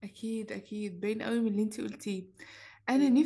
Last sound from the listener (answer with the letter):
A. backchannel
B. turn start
A